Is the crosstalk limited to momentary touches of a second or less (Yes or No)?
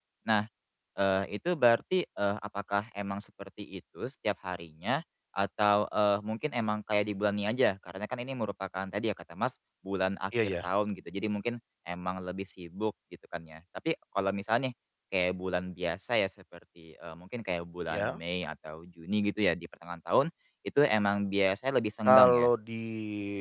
Yes